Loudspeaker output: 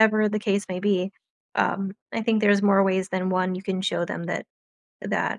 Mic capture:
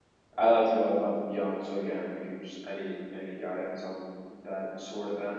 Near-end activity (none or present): present